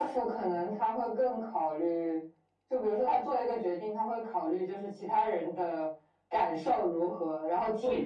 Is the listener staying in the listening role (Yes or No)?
Yes